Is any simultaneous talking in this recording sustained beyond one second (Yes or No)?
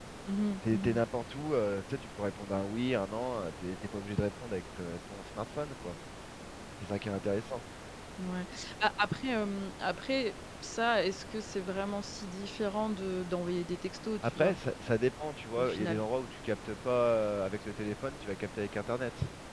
No